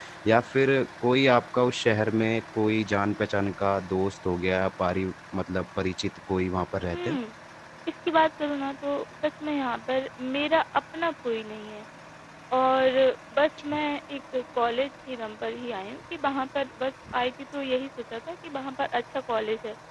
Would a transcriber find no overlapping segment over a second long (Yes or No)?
Yes